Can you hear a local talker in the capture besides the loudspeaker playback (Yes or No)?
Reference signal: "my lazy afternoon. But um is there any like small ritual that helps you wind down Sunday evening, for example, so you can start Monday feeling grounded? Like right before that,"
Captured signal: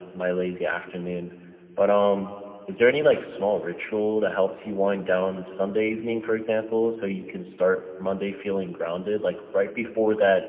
No